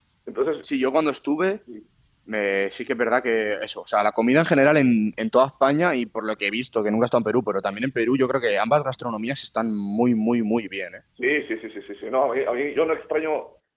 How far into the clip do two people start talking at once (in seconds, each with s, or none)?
none